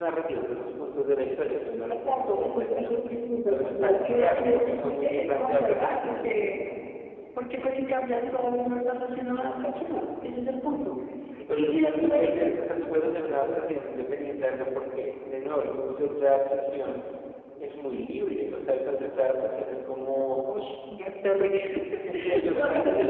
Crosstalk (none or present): present